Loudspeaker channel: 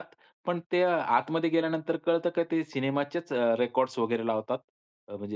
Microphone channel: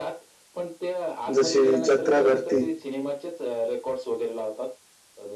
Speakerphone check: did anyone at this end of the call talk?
Yes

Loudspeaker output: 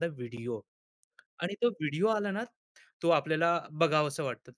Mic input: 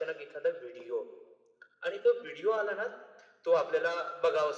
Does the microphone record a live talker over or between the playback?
No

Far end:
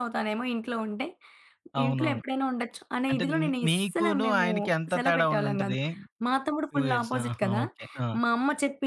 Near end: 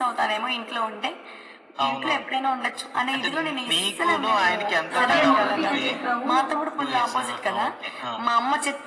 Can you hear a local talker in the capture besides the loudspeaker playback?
Yes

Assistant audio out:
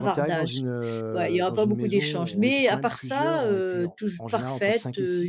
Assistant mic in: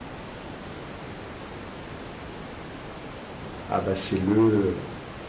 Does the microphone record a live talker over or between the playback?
Yes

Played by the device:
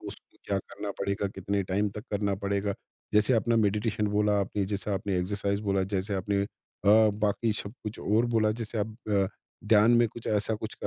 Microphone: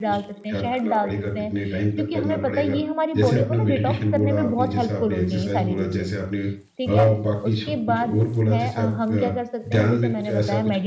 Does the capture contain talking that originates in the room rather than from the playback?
Yes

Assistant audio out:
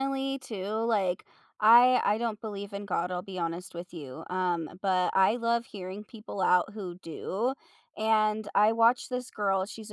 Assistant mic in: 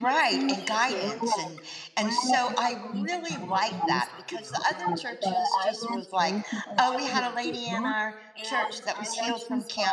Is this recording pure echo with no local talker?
No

